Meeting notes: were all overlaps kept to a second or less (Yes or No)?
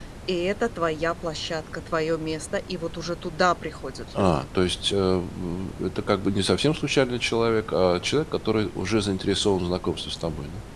Yes